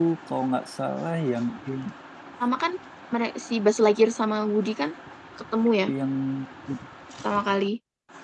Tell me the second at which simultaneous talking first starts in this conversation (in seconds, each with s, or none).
none